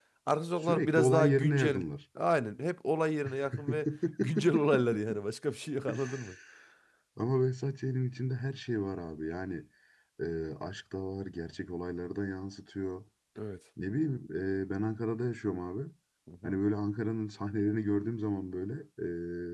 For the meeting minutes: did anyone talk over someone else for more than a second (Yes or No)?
Yes